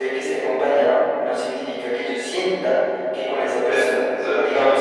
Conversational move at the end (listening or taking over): listening